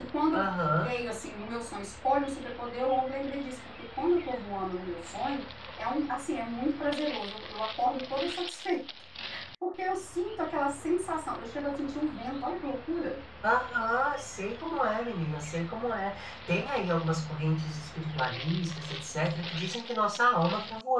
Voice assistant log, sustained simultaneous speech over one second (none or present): none